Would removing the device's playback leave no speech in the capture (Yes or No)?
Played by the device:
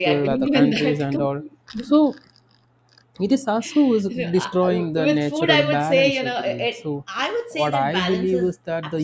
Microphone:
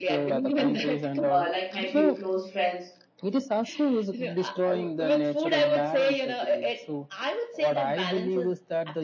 No